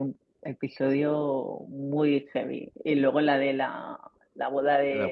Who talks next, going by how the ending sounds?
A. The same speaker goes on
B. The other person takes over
A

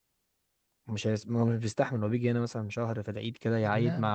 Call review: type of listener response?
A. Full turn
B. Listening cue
B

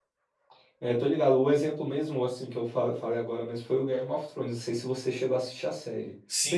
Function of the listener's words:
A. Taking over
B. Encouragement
A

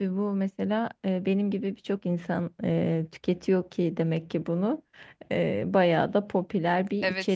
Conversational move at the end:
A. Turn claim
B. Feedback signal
A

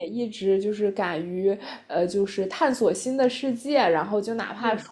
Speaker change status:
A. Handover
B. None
B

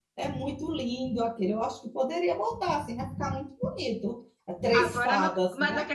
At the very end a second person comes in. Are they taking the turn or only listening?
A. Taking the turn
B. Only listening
A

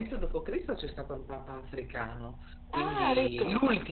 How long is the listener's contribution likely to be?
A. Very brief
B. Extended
A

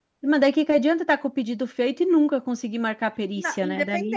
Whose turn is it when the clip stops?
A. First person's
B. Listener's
B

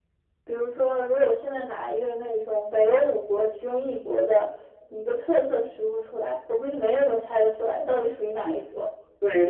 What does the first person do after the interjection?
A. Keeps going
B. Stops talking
B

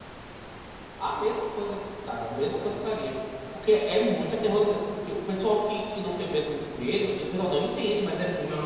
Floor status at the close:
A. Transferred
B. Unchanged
A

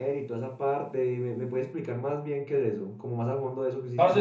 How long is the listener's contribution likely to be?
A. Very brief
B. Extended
B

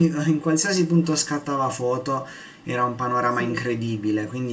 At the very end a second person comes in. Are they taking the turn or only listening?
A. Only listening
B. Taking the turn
A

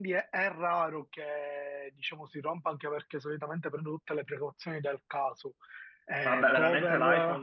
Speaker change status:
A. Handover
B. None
A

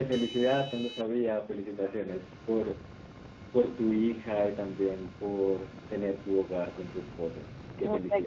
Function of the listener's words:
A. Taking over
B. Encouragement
A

